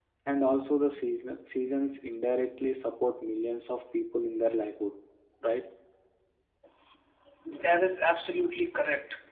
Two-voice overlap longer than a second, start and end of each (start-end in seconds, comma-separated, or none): none